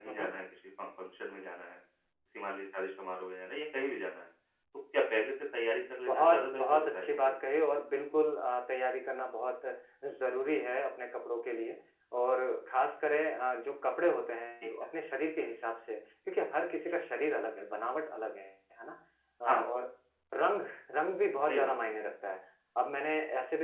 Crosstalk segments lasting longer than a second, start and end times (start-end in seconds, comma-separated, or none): 6.1-7.4